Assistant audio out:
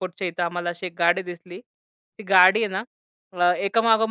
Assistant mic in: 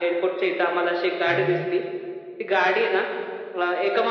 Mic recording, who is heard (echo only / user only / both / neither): both